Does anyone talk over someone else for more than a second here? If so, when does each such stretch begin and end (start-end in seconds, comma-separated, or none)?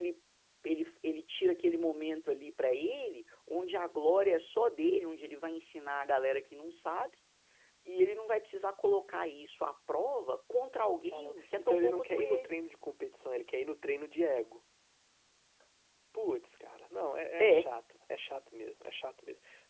11.1-12.5